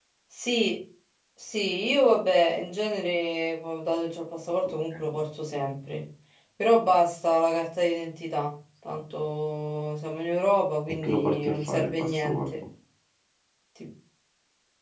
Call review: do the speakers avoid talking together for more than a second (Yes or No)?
No